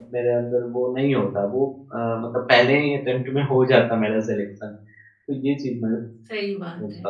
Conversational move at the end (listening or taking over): taking over